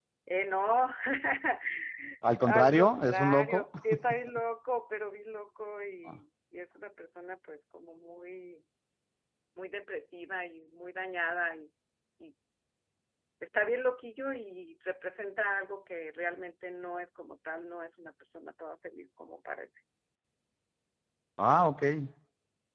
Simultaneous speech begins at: 2.4 s

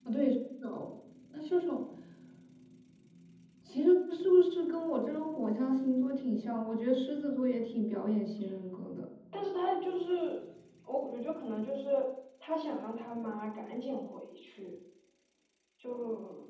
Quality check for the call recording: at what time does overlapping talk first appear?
none

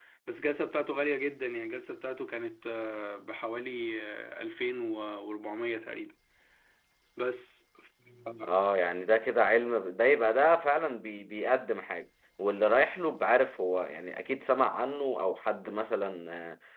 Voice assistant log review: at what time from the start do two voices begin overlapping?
none

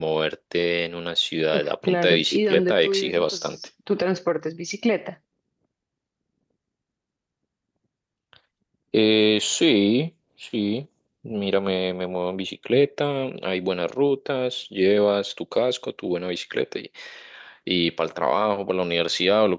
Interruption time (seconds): 1.5 s

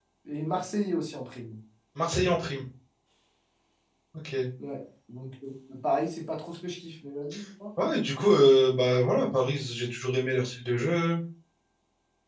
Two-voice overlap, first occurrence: none

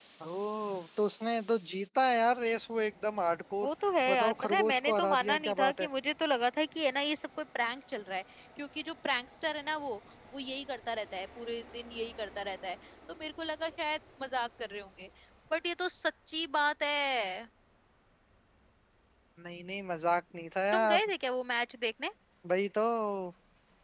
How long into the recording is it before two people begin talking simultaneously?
4.1 s

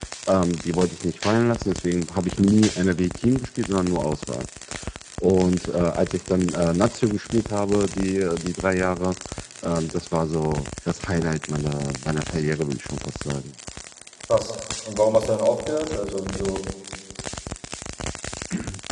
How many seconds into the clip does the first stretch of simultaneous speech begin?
none

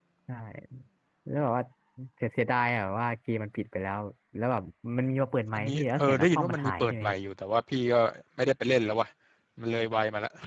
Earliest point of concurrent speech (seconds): 5.5 s

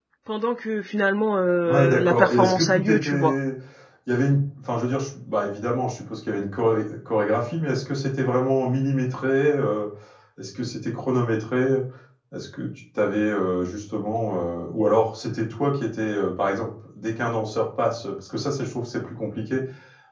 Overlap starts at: 1.6 s

